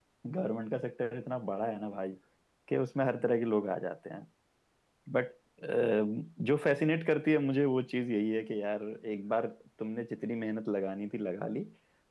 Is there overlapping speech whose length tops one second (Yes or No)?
No